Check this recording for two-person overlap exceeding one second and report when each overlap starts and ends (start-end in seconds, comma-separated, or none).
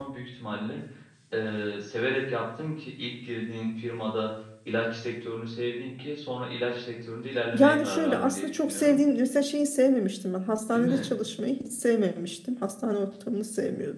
7.5-9.0